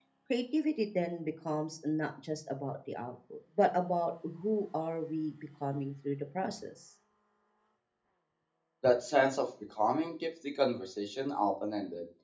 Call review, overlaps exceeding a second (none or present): none